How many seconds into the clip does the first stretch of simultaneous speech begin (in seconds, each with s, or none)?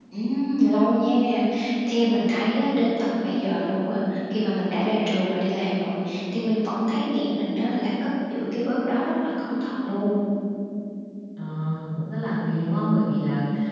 none